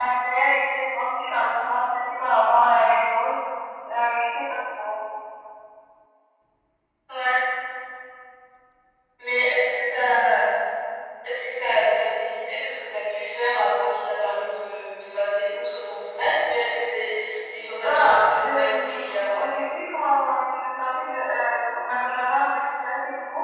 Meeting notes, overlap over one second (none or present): present